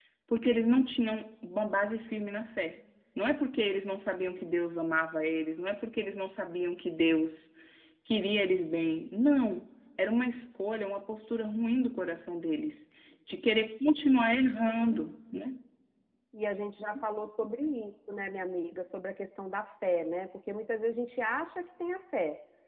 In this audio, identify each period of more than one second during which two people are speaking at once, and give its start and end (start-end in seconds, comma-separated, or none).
none